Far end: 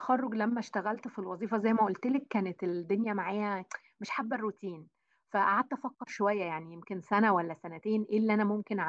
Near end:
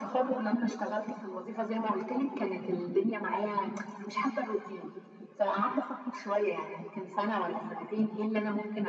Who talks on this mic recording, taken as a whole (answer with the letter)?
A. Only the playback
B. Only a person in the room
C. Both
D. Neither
A